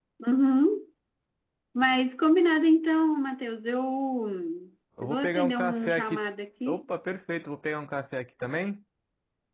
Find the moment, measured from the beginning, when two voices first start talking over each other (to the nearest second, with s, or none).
5 s